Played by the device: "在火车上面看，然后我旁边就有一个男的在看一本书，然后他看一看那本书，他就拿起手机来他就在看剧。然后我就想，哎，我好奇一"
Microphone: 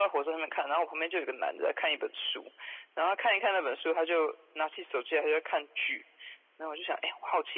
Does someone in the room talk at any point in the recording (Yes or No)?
No